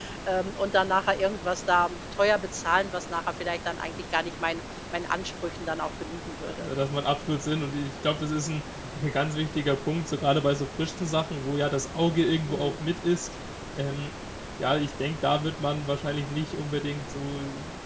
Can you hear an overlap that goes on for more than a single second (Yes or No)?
No